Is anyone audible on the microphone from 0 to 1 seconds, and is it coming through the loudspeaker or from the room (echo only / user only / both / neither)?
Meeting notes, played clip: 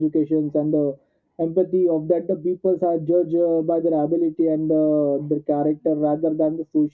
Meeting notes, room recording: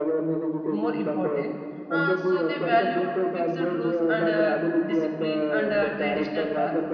both